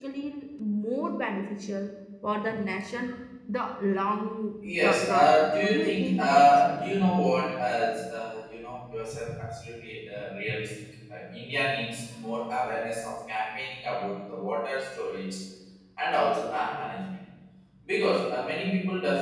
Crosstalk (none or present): present